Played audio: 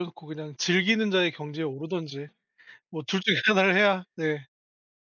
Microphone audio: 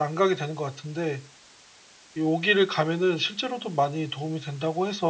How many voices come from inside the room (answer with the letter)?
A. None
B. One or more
B